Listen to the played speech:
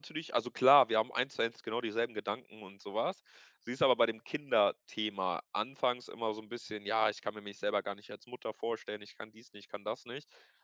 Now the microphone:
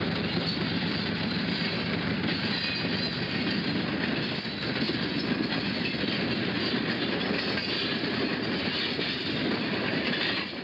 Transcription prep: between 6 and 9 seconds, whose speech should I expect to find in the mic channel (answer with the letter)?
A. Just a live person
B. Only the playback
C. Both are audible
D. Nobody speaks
D